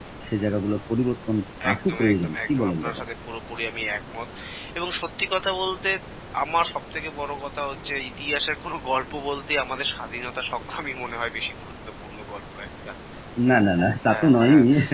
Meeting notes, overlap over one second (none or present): present